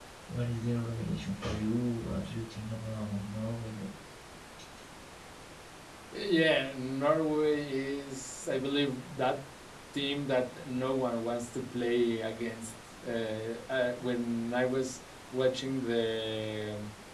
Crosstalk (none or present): none